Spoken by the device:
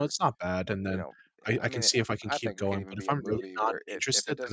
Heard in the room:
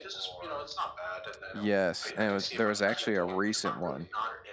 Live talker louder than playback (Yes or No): Yes